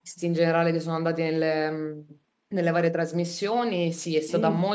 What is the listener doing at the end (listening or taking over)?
listening